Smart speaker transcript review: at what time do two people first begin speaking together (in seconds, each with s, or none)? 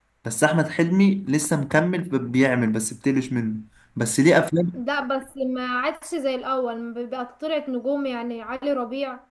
none